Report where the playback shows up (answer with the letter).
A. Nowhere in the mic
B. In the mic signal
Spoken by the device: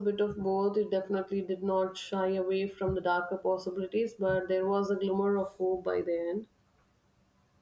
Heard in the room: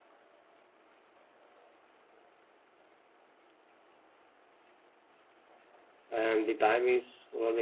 A